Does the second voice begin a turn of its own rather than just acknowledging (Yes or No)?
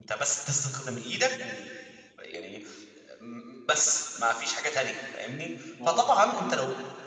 No